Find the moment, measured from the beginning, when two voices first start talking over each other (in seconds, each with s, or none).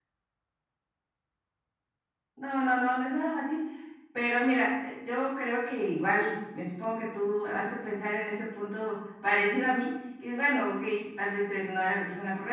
none